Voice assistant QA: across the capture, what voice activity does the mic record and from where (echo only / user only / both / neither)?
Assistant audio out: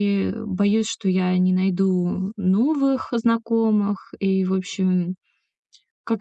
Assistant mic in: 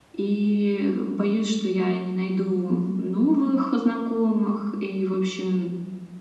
echo only